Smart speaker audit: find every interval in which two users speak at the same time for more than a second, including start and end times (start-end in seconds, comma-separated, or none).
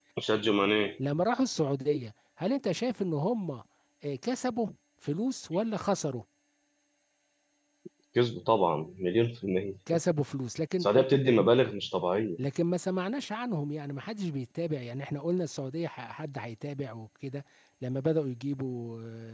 none